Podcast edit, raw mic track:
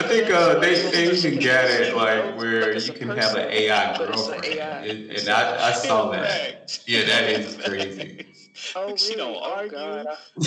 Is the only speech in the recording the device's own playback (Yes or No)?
No